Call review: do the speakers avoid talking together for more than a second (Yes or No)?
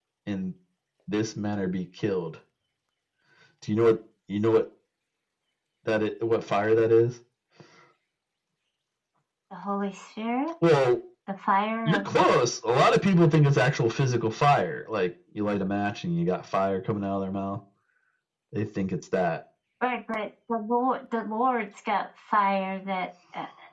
Yes